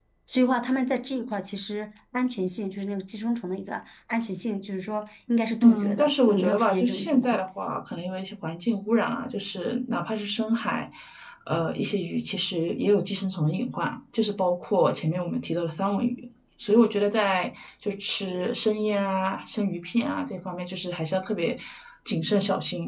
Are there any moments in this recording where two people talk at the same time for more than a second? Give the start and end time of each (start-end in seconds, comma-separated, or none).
5.6-7.4